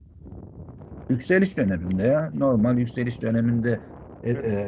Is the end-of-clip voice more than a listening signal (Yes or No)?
No